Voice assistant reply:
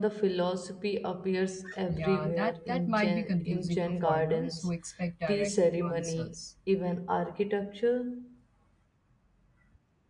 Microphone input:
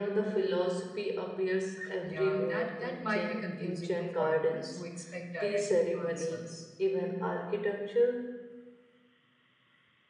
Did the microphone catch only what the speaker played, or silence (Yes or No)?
Yes